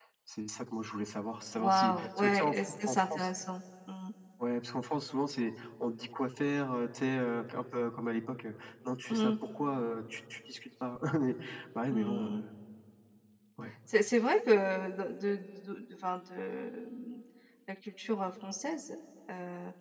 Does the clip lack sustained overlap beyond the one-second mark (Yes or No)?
No